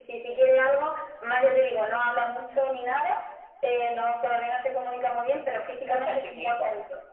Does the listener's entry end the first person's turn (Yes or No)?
No